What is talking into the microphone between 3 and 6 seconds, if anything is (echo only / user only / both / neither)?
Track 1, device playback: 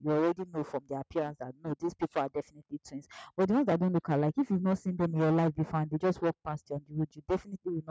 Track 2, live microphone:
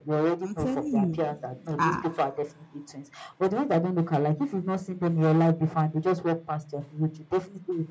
echo only